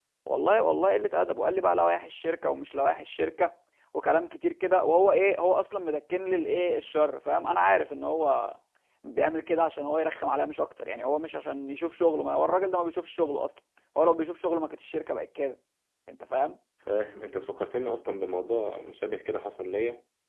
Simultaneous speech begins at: none

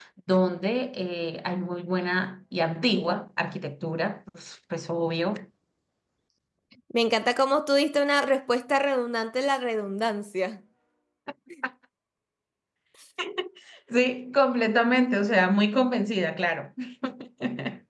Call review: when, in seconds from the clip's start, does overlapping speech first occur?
none

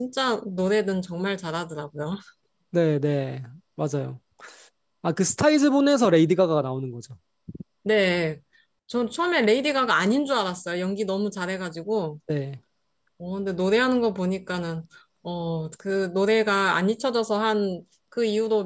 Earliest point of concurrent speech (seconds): none

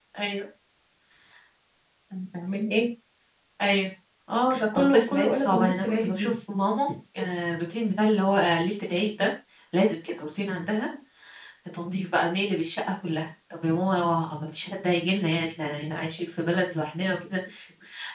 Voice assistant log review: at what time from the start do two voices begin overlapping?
4.8 s

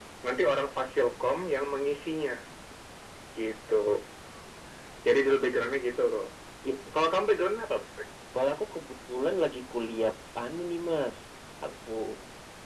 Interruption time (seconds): none

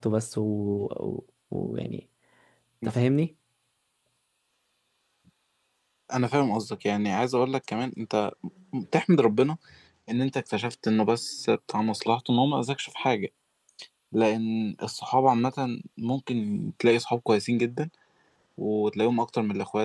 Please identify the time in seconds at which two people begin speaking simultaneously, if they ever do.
none

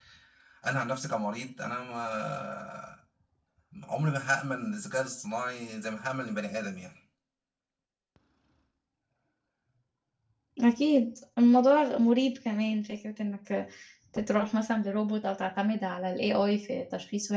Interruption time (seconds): none

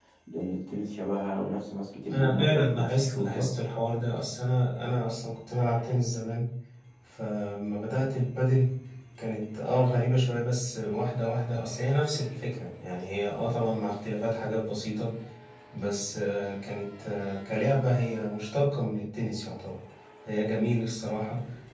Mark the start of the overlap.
2.1 s

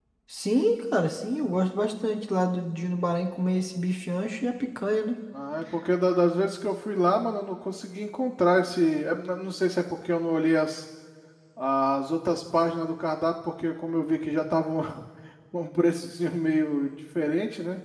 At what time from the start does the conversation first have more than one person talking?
none

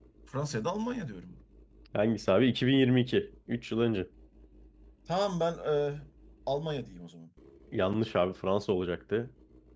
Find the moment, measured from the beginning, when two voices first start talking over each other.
none

